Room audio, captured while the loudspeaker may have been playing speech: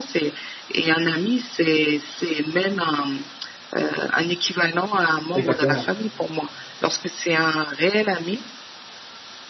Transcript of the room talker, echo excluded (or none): Exactement.